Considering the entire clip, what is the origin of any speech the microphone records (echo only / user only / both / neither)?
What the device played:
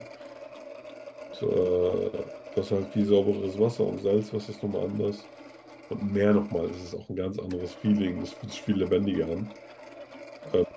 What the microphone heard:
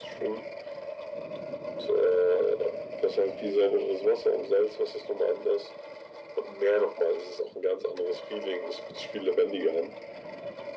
echo only